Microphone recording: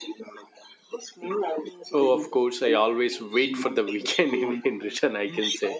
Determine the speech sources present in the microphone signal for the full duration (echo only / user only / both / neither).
both